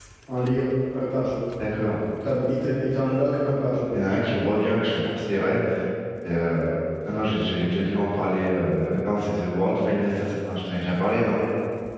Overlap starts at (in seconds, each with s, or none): none